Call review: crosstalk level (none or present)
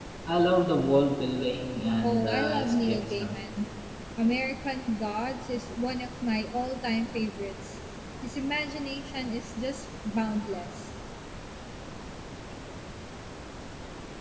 present